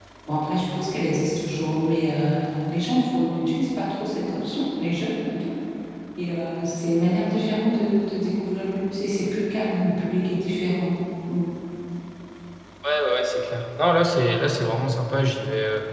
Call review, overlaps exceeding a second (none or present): none